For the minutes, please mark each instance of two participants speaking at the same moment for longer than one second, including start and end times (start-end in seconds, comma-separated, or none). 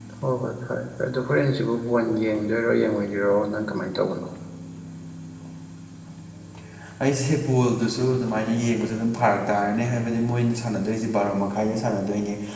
none